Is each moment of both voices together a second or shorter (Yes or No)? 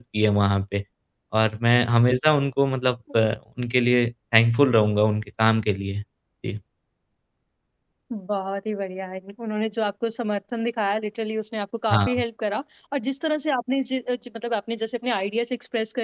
Yes